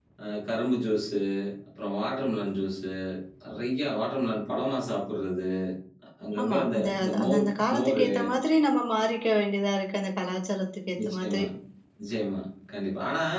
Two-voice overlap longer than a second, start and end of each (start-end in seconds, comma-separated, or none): 6.4-8.1